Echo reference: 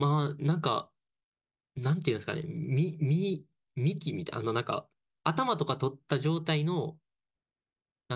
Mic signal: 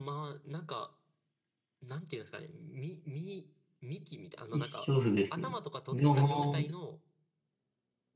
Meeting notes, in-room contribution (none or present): present